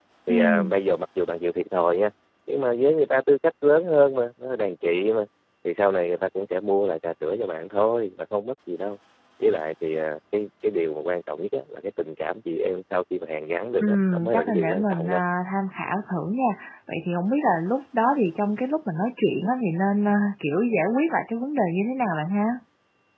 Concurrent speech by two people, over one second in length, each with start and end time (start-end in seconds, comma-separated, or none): 13.8-15.2